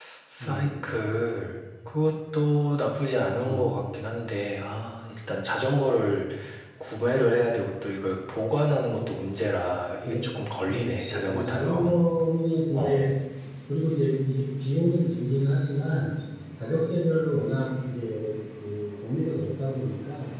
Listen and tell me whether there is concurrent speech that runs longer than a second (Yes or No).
Yes